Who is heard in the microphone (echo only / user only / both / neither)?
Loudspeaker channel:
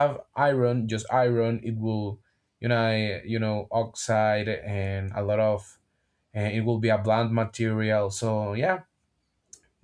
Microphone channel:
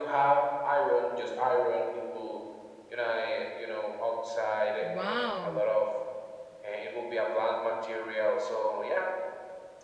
both